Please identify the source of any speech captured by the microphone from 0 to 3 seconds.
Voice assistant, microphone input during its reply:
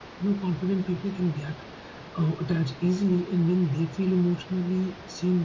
echo only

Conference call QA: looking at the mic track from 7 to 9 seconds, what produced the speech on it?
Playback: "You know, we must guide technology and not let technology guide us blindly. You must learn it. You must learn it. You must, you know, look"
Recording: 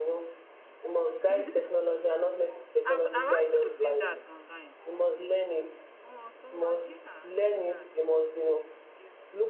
both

